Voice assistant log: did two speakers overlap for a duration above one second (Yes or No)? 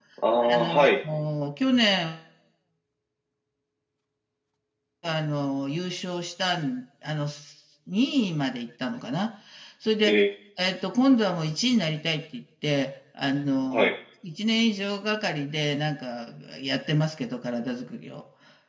No